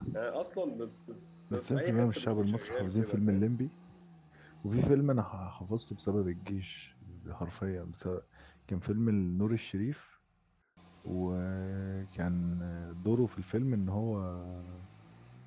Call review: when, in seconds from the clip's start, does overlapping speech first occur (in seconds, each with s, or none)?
1.7 s